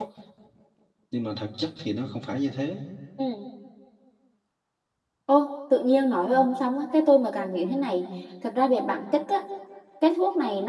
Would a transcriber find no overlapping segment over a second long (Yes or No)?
Yes